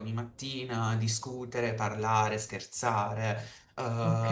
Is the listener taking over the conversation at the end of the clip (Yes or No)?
No